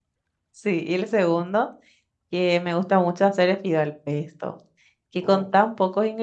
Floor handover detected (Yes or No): No